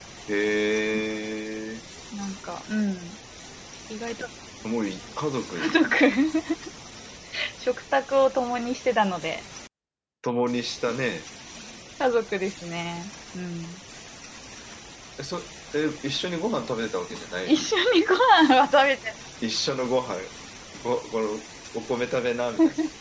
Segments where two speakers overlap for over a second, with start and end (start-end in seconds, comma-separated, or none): none